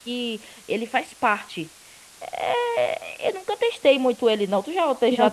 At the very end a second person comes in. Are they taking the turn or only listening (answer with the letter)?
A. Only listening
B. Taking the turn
B